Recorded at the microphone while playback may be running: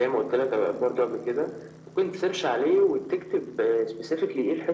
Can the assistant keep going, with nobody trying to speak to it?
Yes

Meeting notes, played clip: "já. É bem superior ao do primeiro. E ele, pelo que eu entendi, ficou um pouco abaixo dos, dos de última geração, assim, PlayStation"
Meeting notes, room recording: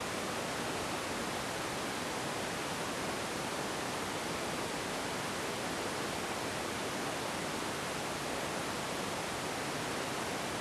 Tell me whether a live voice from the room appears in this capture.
No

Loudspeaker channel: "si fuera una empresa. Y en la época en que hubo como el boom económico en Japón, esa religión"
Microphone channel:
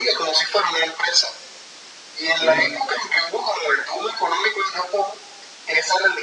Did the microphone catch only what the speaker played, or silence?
No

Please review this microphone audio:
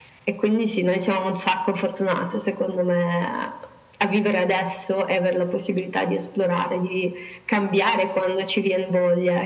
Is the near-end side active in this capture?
No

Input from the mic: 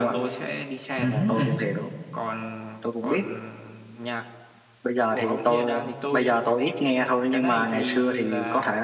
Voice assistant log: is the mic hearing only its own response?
No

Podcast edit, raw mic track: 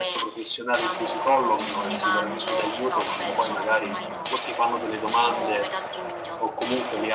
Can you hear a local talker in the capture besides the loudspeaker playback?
Yes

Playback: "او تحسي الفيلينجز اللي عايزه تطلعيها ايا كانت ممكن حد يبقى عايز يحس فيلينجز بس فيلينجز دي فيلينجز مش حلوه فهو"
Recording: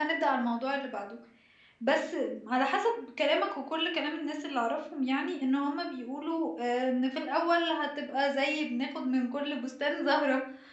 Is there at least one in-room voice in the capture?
Yes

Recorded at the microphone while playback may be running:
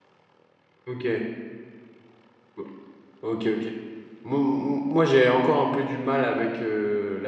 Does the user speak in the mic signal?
Yes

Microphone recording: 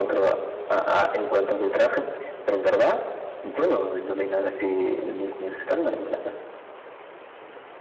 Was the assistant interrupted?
No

